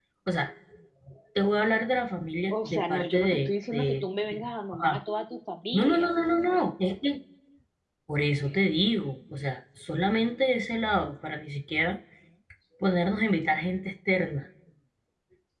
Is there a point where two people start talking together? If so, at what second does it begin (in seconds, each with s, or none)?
2.5 s